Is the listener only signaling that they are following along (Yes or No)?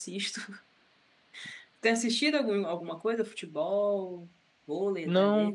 No